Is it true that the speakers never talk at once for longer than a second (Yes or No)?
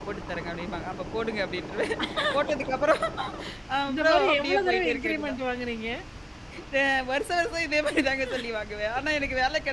No